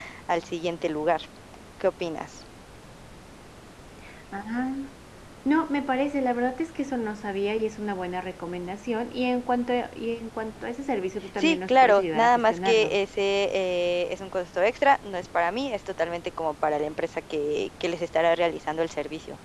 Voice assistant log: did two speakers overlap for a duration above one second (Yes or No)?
Yes